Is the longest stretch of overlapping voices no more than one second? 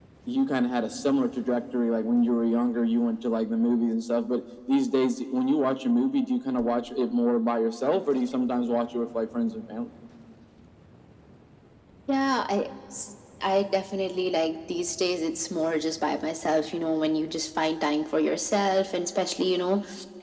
Yes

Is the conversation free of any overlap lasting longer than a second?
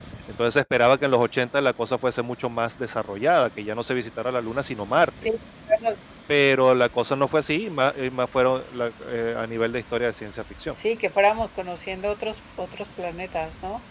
Yes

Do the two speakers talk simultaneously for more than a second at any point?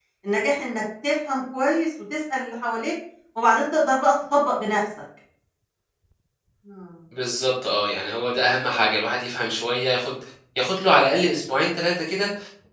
No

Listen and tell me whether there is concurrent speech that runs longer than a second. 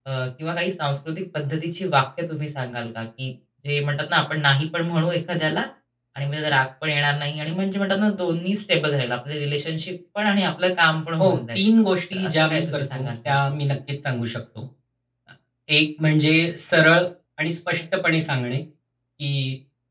Yes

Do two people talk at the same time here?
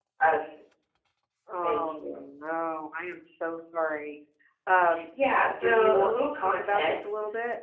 Yes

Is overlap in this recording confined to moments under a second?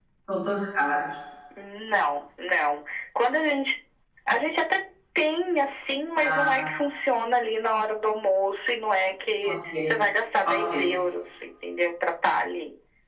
Yes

